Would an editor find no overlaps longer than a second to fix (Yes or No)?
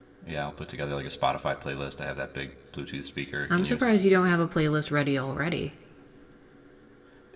Yes